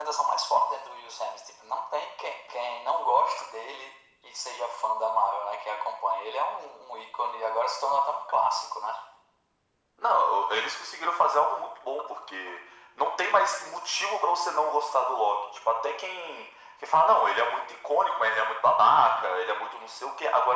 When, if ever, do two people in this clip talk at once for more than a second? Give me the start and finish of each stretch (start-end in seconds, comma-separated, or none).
none